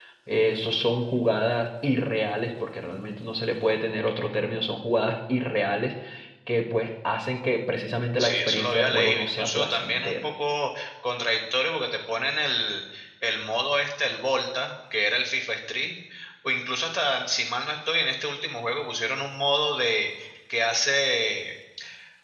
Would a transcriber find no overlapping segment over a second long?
No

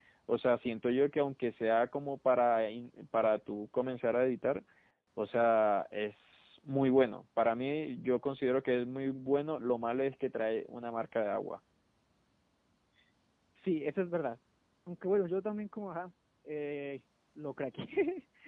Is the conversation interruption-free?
Yes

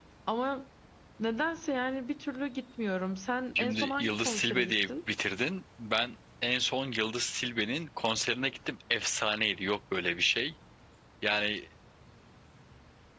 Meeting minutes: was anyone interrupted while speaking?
Yes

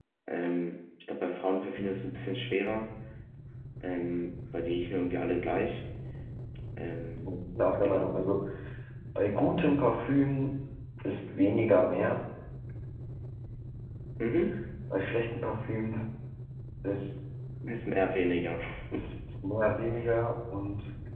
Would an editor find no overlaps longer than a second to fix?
Yes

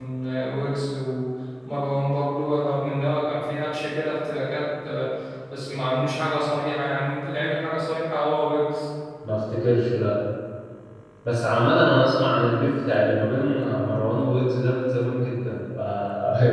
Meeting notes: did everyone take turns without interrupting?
Yes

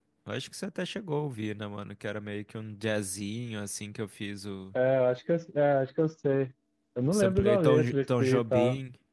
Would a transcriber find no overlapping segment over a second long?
No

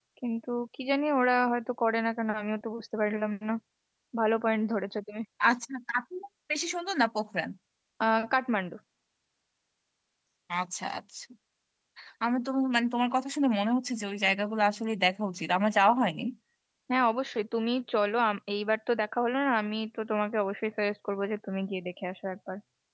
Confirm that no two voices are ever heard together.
Yes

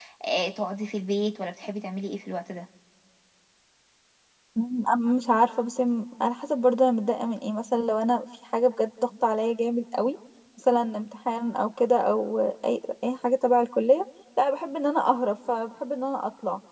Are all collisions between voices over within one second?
Yes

